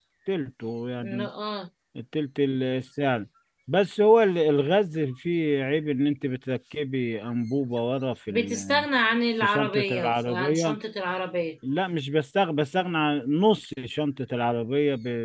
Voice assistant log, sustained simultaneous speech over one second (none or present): present